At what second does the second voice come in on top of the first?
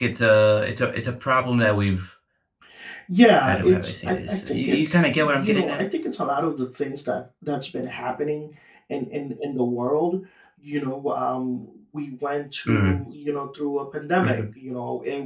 3.4 s

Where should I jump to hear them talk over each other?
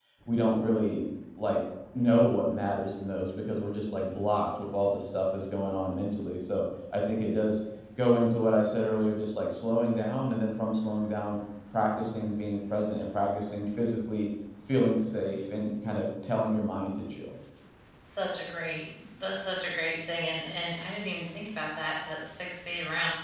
none

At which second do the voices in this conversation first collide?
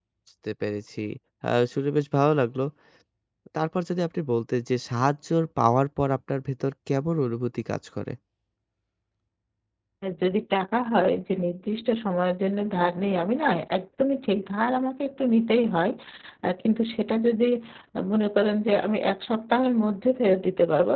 none

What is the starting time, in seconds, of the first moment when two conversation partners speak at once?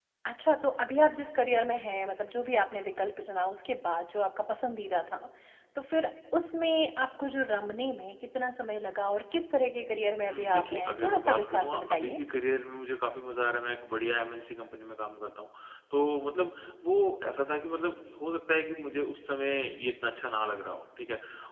10.3 s

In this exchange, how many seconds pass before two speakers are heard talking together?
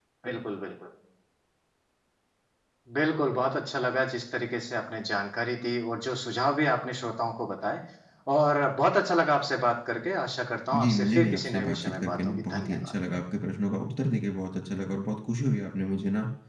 10.7 s

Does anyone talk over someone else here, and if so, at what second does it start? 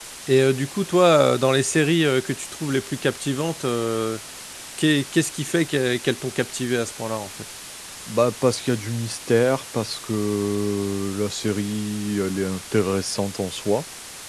none

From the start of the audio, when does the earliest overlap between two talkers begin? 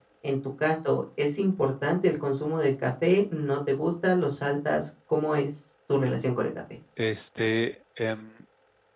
none

